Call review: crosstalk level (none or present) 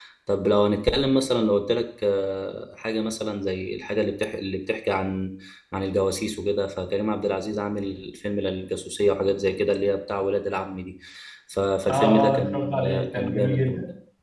present